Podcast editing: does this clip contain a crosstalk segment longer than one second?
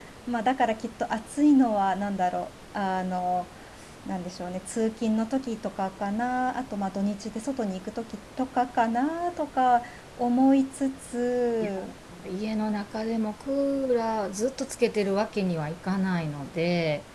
No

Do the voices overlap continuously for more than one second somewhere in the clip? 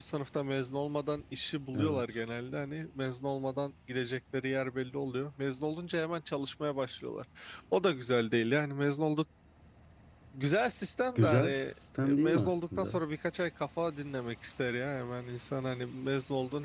Yes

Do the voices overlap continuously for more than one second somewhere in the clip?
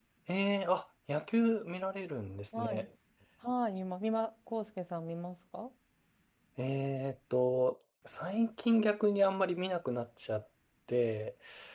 No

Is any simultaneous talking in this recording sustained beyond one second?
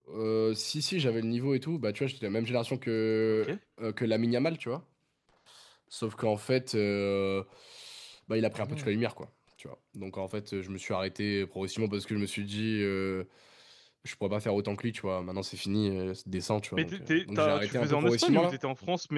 Yes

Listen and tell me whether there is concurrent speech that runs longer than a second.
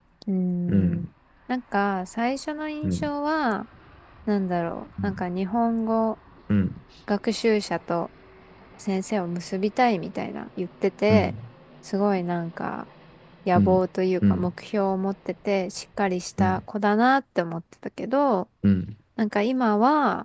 No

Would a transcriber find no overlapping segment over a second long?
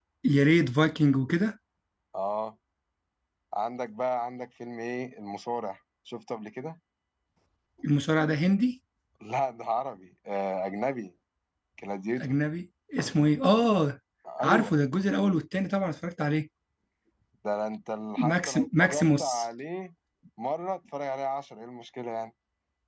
No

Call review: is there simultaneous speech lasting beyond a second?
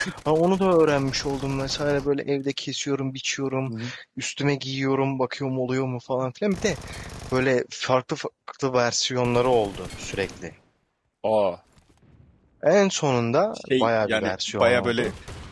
Yes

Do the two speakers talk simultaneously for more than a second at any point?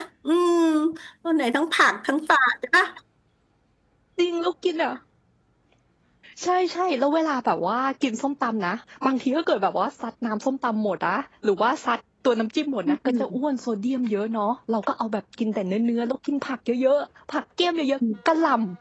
No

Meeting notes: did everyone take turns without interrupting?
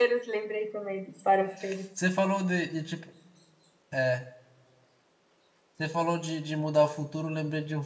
Yes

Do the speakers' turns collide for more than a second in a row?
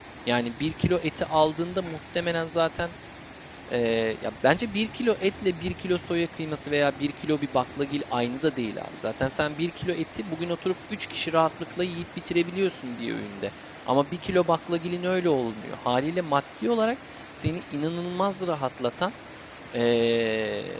No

